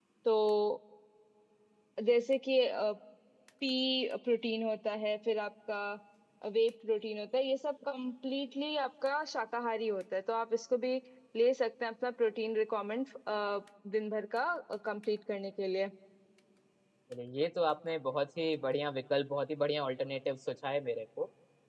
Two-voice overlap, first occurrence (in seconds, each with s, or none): none